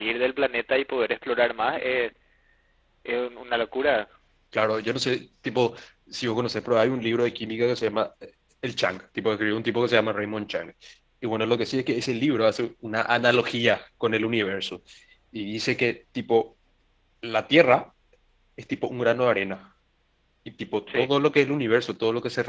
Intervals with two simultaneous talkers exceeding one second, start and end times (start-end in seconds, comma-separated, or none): none